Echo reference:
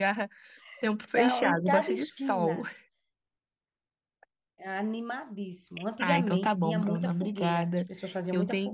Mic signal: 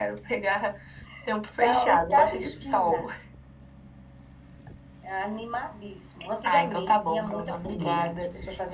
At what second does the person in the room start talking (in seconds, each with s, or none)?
7.5 s